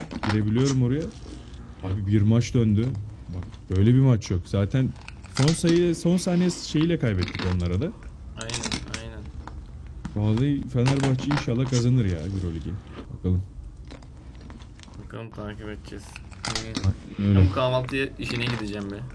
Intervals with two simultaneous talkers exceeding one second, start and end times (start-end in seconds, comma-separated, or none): none